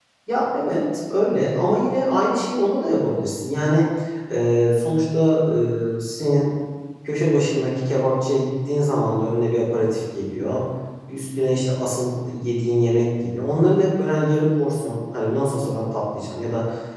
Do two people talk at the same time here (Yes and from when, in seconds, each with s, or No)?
No